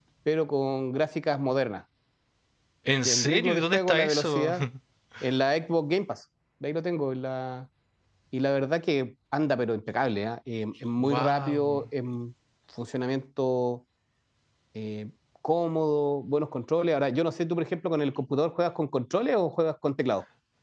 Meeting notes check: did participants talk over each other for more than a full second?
Yes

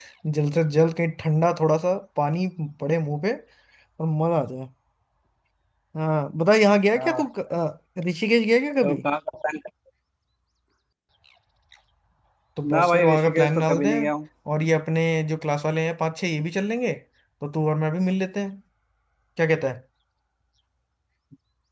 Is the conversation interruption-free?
No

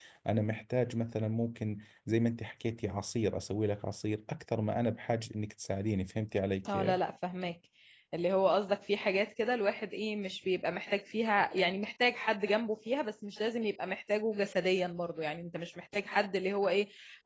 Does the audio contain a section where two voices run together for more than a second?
No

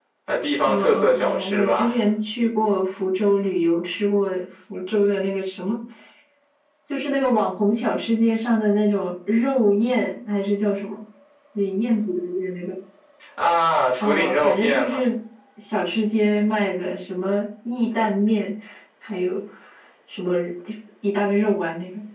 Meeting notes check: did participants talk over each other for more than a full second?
Yes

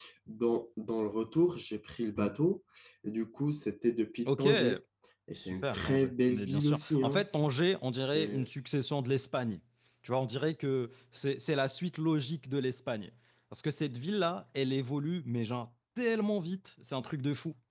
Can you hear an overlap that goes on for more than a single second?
Yes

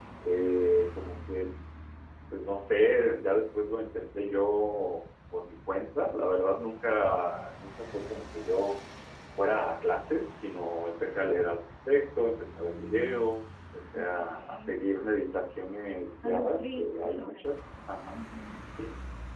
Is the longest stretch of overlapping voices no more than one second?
No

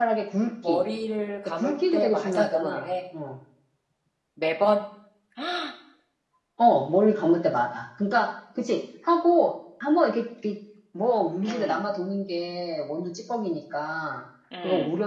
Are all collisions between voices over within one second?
No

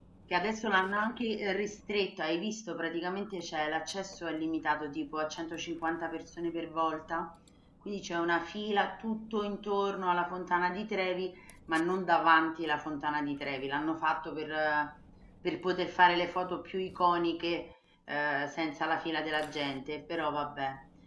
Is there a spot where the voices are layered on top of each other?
No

